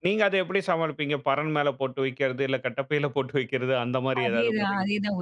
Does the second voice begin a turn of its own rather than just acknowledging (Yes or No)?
Yes